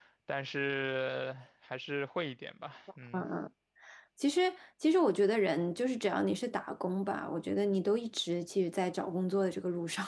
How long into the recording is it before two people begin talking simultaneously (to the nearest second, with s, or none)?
none